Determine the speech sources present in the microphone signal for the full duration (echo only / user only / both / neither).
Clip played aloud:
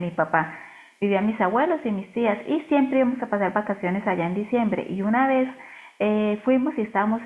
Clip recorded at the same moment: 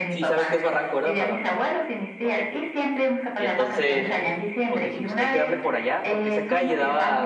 both